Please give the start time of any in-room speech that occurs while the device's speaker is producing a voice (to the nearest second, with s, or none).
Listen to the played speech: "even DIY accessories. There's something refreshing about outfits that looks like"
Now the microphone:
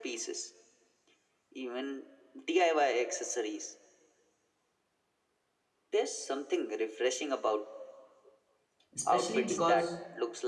9 s